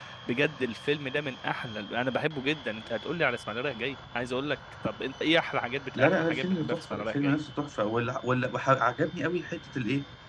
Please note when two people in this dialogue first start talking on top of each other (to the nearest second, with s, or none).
6 s